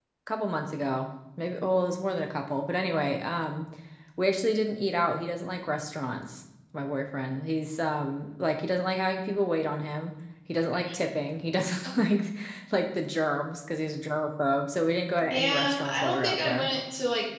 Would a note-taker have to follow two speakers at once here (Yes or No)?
Yes